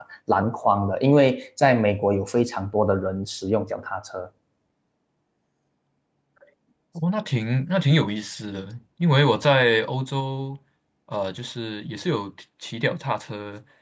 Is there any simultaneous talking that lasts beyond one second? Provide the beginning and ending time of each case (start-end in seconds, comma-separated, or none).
none